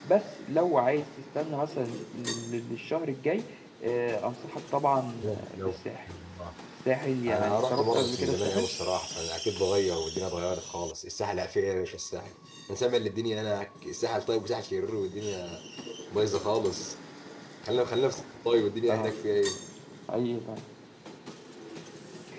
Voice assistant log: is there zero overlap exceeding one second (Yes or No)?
No